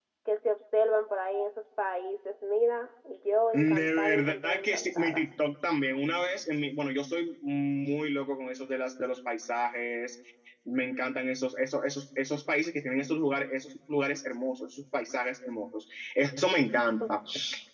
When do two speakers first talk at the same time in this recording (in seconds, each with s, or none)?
3.5 s